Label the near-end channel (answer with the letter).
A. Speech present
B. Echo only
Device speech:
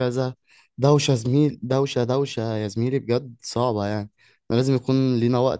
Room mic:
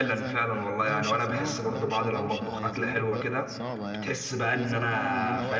A